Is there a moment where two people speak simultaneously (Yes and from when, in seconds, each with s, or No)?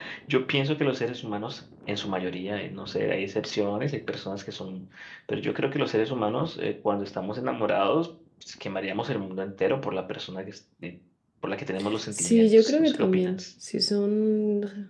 Yes, from 12.1 s